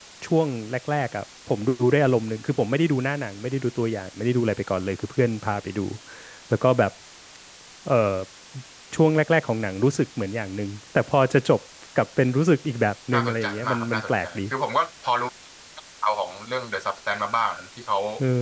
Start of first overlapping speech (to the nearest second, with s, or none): 13 s